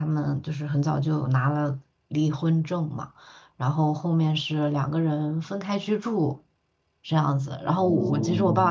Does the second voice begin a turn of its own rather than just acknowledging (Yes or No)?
No